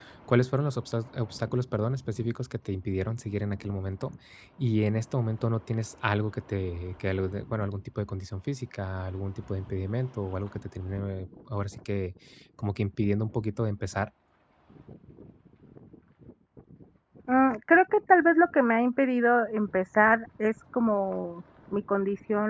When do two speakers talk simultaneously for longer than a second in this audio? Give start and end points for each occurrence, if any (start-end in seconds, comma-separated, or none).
none